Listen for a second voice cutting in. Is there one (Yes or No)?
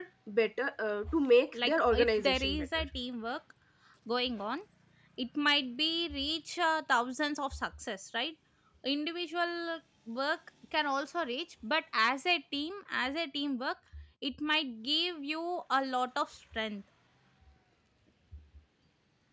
Yes